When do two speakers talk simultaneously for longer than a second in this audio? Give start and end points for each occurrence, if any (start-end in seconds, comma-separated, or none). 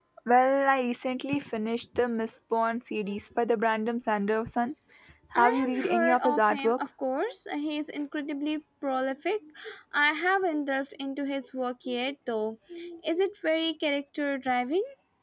5.4-6.8